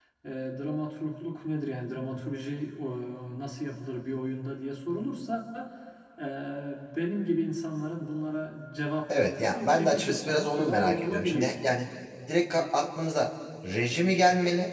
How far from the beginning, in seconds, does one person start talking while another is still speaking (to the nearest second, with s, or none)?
9 s